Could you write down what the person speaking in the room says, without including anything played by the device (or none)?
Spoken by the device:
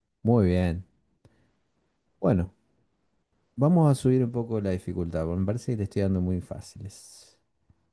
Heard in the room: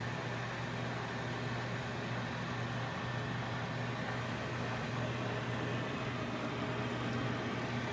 none